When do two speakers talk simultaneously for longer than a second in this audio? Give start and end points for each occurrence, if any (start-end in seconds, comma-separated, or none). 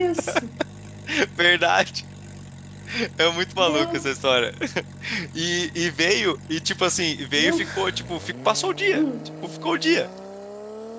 none